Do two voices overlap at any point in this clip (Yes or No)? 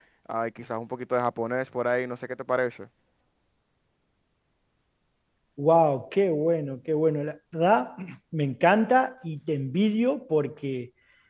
No